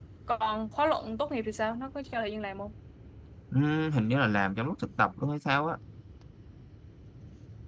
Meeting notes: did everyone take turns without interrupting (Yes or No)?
Yes